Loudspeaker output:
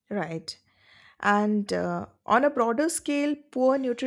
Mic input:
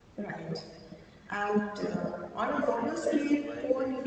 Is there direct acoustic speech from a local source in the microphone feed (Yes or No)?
Yes